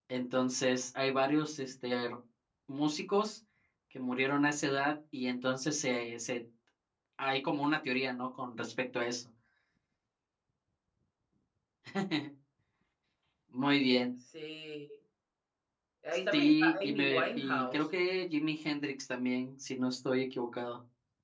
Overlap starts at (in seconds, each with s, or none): 16.3 s